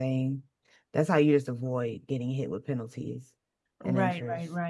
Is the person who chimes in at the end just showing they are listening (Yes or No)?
No